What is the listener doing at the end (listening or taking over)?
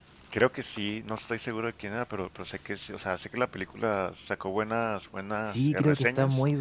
taking over